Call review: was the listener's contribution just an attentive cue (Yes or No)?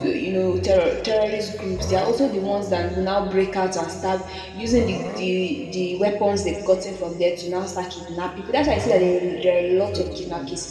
Yes